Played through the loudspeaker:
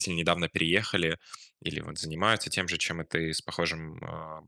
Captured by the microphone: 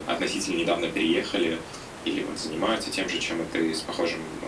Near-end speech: none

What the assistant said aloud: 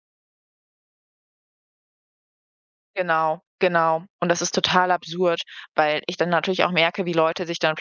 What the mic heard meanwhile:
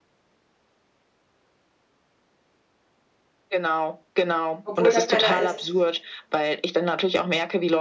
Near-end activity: present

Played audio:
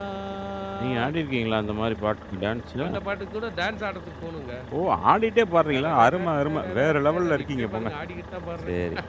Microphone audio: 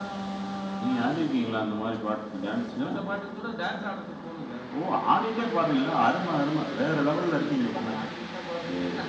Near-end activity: none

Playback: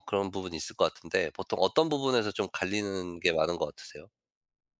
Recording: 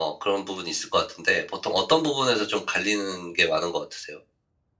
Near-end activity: none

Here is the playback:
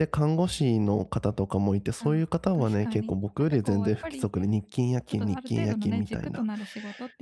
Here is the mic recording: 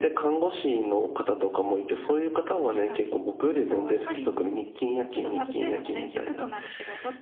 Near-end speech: none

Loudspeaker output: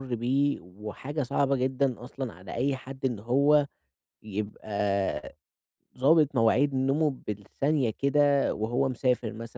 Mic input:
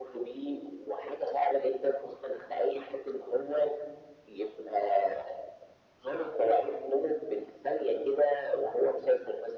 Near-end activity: none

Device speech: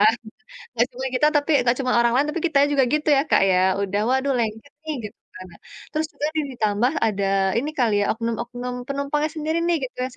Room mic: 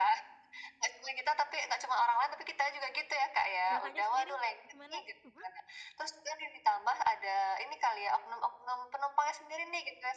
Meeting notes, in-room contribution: present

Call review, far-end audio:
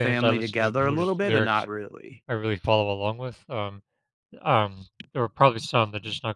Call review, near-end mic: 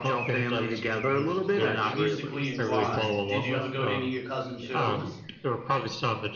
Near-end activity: present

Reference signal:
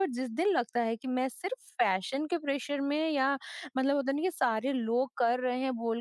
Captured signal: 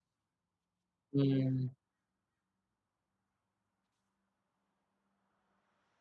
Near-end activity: present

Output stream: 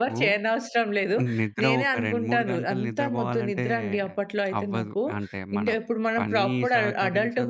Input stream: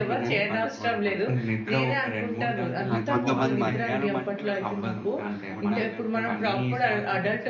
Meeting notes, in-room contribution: present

